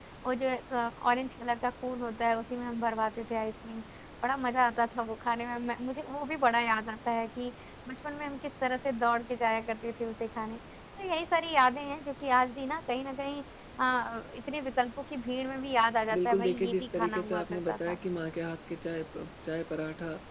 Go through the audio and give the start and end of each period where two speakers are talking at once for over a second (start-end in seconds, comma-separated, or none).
16.1-18.0